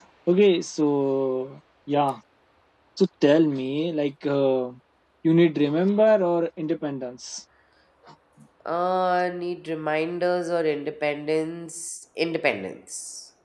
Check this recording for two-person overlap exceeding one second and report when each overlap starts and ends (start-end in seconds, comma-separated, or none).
none